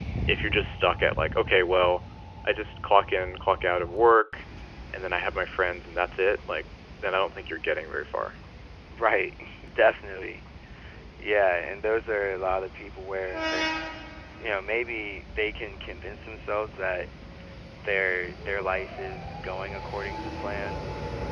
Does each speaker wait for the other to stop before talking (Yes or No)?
Yes